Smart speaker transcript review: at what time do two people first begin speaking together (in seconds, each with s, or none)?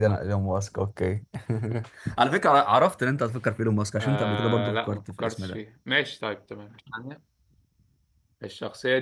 4.0 s